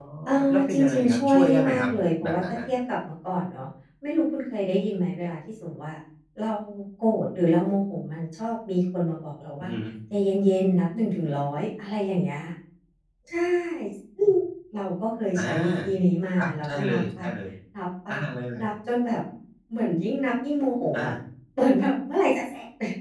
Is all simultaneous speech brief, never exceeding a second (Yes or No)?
No